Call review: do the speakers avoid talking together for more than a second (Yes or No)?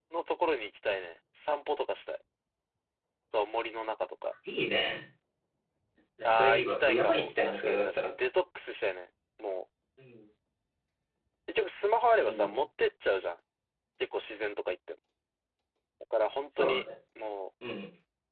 No